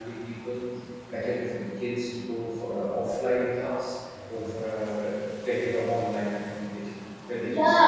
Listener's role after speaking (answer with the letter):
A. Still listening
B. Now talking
B